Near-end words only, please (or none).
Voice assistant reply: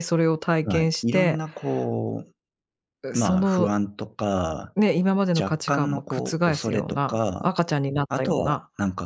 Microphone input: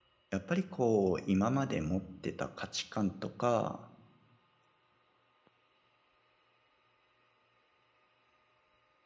やっぱりこう、今まで持ってた価値観とか、